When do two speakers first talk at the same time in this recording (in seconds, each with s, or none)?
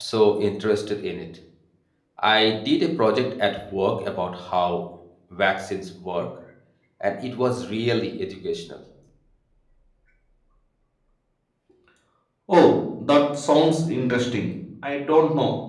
none